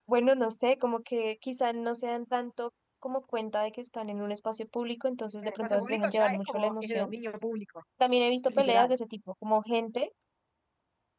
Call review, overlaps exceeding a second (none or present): present